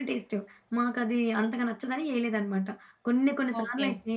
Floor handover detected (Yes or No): No